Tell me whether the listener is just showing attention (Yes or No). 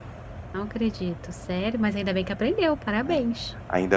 No